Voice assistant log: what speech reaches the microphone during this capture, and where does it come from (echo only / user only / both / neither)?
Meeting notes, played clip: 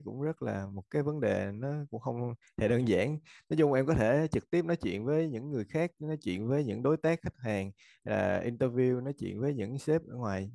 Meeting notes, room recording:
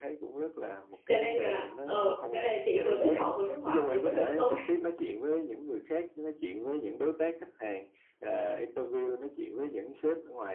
both